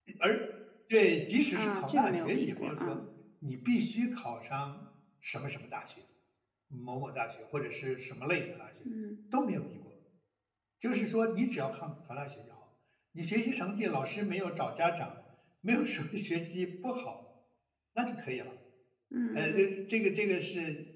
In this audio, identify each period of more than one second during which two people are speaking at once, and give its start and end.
1.5-3.0

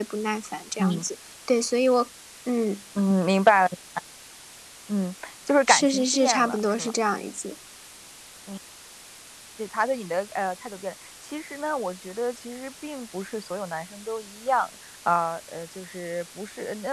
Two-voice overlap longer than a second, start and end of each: 5.7-6.9

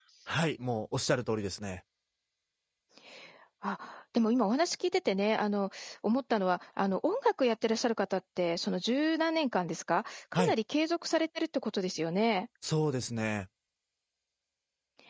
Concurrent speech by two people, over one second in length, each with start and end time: none

